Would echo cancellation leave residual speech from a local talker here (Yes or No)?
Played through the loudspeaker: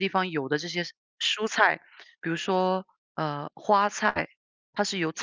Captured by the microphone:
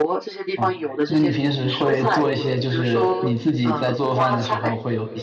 Yes